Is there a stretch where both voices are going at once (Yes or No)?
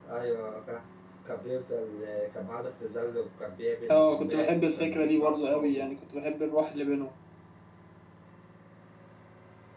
Yes